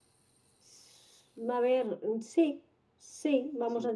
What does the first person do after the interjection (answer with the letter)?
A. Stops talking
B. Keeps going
A